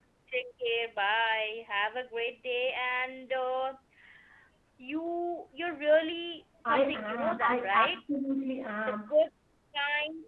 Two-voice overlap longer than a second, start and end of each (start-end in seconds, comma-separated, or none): 6.7-8.0